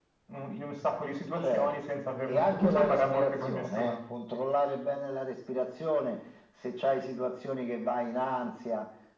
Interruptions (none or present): present